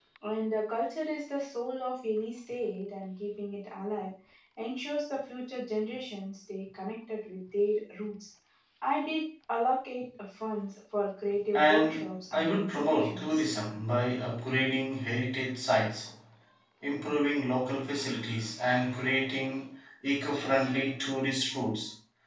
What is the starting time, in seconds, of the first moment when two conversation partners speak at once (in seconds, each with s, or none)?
11.5 s